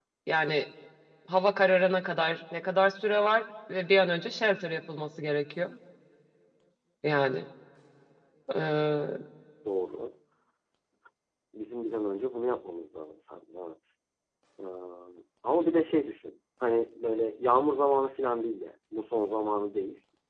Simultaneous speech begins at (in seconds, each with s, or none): none